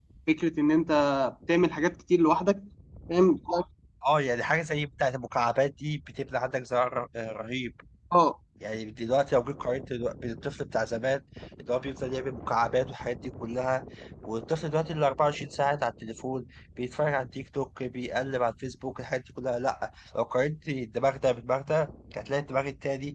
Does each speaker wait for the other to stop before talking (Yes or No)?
Yes